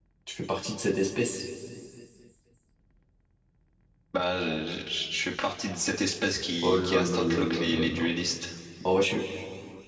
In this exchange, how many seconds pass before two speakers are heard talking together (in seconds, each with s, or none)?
6.6 s